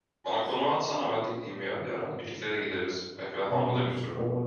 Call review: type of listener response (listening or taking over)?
taking over